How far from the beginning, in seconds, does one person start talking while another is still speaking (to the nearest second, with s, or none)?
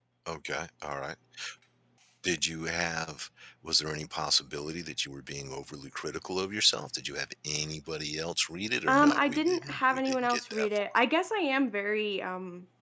9 s